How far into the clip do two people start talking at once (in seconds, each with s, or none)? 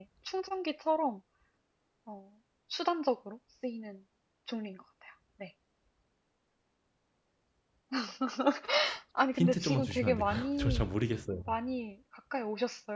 9.3 s